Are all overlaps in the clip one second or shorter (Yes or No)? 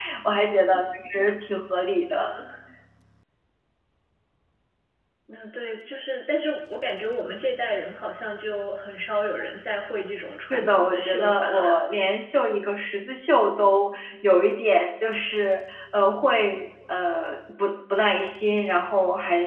No